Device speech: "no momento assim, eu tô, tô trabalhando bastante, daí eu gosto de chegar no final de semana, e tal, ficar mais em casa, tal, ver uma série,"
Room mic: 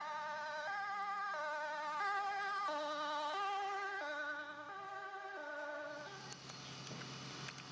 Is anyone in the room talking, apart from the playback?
No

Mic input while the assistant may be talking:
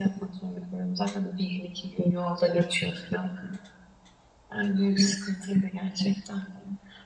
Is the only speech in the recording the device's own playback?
Yes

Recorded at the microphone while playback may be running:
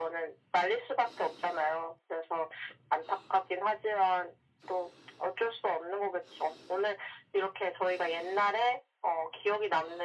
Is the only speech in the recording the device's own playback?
Yes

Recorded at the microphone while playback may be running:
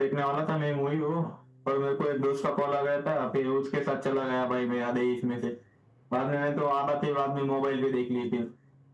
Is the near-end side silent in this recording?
Yes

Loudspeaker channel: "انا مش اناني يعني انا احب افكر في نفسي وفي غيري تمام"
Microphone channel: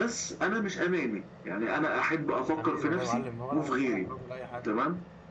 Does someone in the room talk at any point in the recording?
Yes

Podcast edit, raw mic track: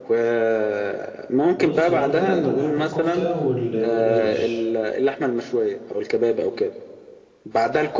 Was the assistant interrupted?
Yes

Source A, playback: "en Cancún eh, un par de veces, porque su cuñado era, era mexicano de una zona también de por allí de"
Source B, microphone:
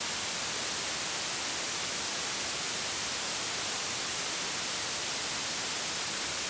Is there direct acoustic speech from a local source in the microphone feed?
No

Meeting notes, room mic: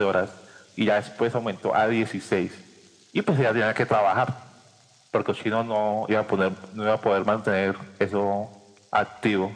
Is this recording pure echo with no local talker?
Yes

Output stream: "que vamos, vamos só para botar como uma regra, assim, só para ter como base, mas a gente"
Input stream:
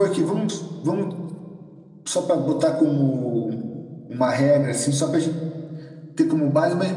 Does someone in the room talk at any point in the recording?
No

